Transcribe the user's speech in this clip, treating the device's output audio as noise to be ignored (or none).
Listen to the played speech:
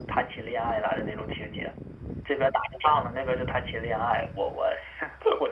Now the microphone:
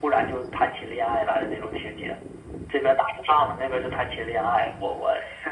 none